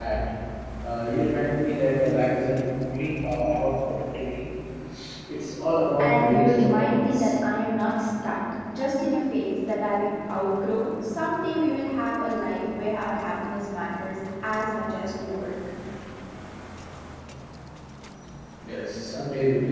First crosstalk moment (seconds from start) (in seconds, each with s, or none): 6.0 s